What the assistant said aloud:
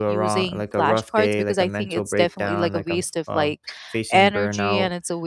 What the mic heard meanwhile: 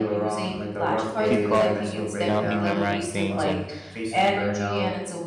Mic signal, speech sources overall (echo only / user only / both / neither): both